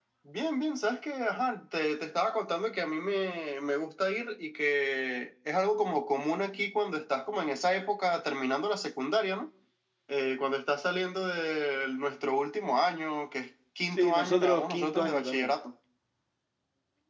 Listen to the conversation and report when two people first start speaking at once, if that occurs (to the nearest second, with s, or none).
14 s